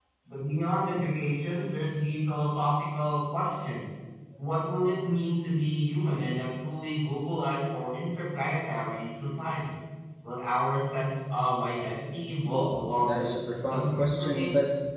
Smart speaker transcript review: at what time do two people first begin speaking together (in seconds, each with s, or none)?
12.4 s